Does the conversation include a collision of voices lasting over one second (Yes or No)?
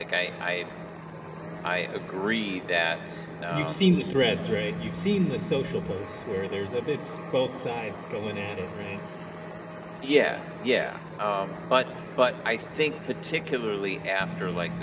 No